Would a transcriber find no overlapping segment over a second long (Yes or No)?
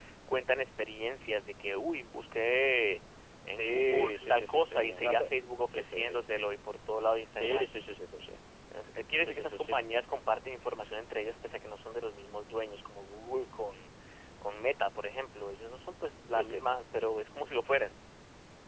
No